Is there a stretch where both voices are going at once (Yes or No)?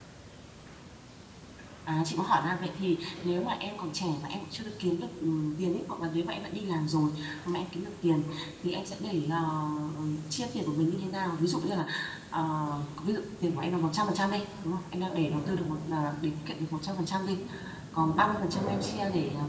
No